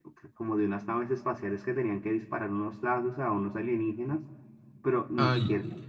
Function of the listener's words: listening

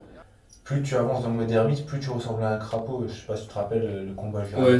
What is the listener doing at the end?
taking over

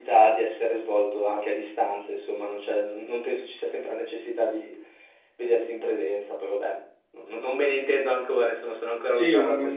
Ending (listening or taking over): taking over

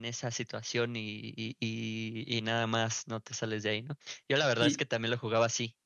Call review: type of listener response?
listening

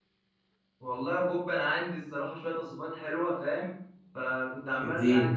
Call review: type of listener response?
listening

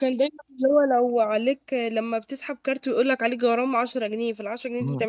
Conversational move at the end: taking over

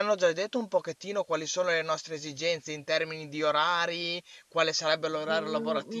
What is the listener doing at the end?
taking over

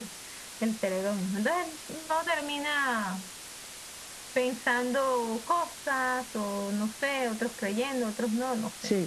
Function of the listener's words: taking over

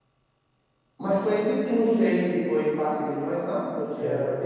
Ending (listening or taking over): taking over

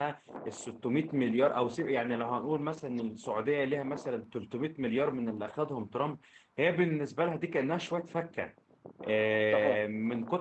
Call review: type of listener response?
listening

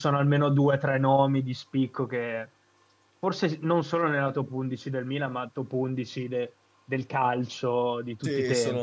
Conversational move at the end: taking over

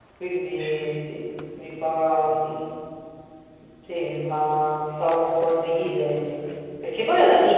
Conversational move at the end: listening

